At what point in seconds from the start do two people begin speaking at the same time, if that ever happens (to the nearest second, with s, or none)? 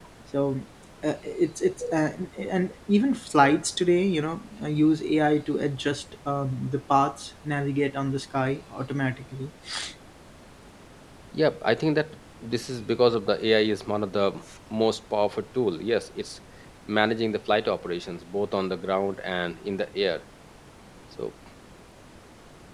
none